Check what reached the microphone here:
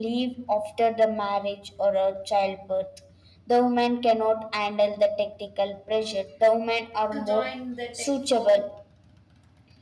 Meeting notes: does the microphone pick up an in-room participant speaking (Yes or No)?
Yes